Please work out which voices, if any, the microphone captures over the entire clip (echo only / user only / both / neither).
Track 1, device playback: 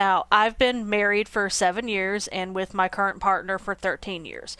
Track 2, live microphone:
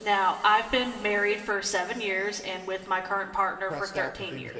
both